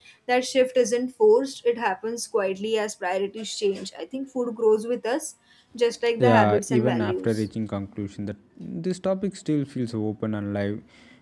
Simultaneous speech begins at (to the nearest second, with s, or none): 6 s